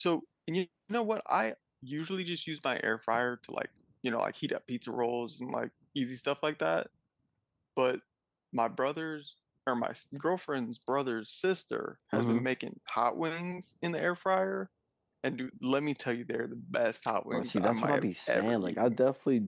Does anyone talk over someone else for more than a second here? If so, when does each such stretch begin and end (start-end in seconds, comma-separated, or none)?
17.3-19.0